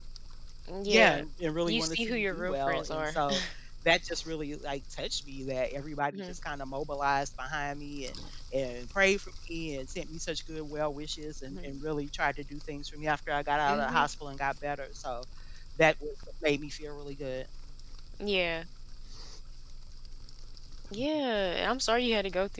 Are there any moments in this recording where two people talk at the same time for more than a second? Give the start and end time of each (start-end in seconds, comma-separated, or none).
1.7-3.2